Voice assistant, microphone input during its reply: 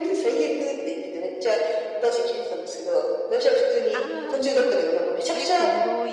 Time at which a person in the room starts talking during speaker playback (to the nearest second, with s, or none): 4 s